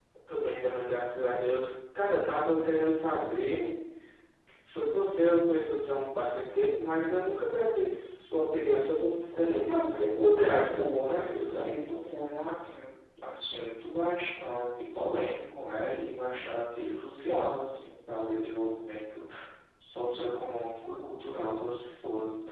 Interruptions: present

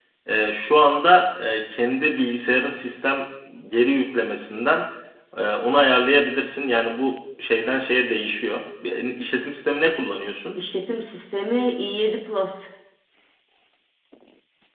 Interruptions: none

